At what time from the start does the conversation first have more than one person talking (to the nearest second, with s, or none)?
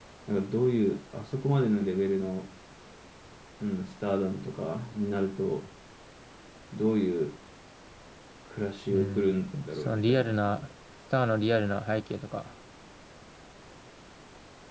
9 s